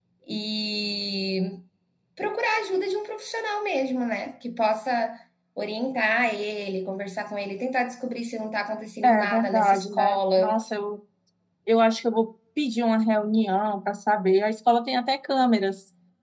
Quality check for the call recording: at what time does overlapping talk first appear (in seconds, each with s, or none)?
9.0 s